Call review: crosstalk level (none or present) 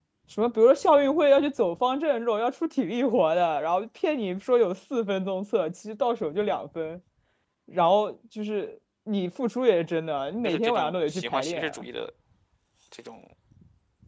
present